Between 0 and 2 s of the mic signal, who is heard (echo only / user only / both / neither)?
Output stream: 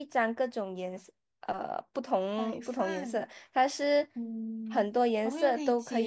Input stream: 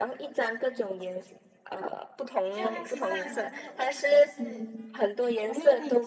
echo only